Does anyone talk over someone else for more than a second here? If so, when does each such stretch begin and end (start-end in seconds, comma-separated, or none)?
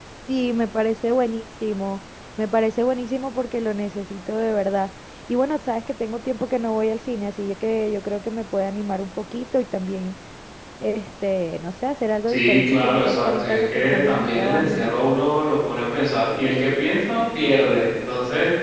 12.3-14.9